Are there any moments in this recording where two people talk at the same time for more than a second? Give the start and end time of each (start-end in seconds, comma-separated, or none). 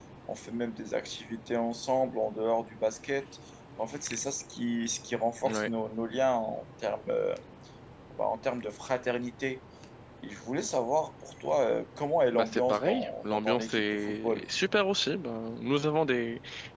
12.3-14.4